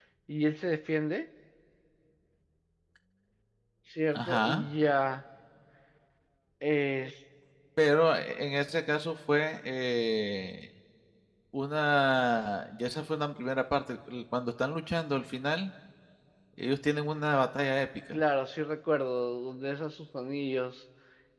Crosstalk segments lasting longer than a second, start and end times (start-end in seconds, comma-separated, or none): none